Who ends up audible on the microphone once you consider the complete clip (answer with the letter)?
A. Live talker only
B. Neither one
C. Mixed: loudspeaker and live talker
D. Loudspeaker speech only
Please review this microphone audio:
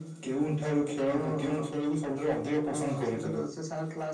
D